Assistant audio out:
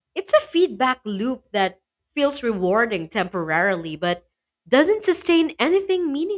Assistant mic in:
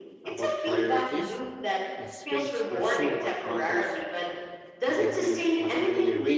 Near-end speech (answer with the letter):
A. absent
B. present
B